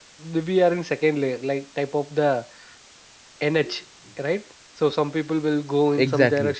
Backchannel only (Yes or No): Yes